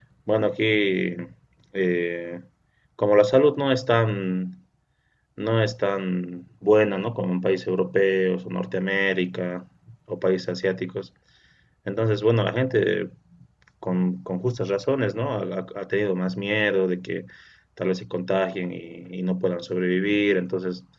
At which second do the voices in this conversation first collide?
none

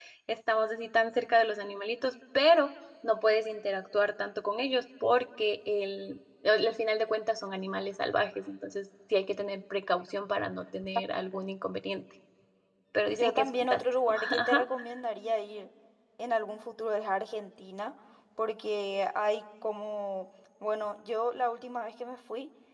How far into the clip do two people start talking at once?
13 s

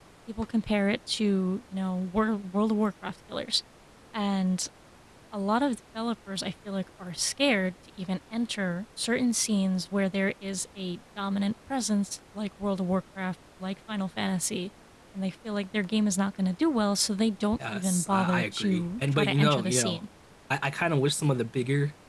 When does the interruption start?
18 s

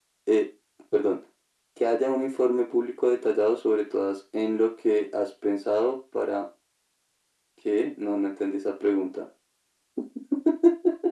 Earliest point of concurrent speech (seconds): none

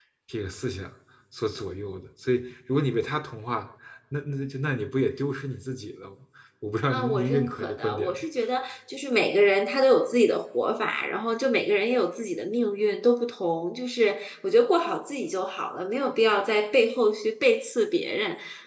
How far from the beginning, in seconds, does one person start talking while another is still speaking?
7 s

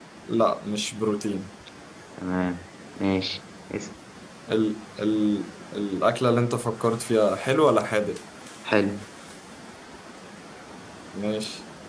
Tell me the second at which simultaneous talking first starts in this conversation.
none

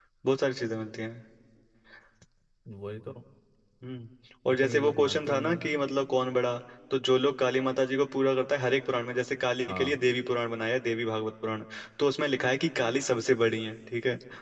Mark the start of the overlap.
4 s

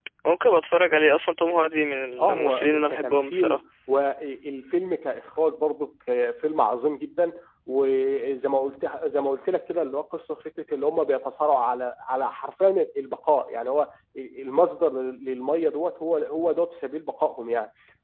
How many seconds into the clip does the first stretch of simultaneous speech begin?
2 s

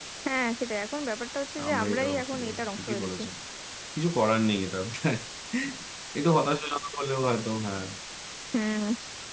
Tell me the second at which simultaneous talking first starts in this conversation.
2 s

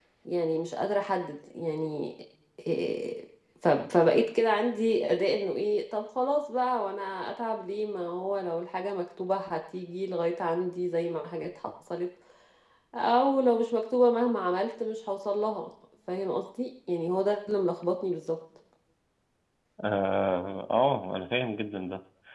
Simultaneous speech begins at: none

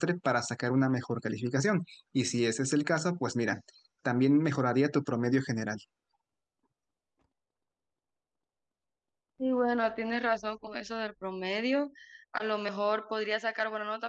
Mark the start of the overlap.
none

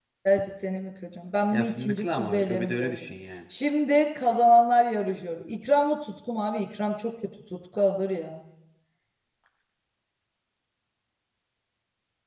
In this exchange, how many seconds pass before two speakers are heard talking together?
2 s

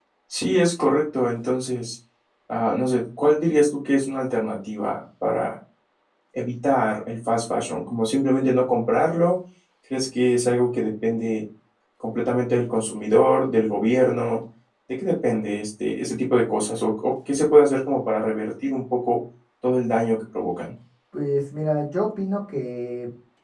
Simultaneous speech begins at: none

